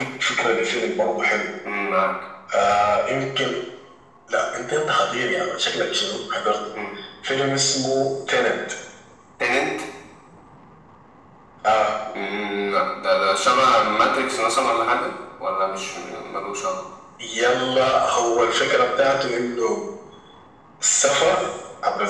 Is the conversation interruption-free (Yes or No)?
Yes